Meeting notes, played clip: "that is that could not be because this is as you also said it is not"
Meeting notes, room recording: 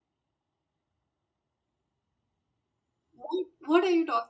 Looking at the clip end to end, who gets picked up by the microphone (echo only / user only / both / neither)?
user only